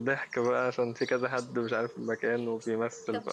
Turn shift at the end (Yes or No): Yes